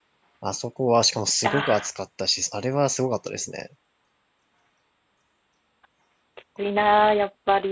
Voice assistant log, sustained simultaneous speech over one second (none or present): none